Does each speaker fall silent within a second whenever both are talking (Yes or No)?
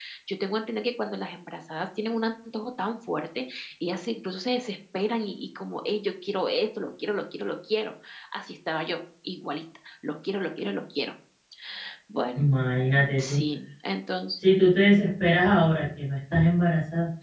Yes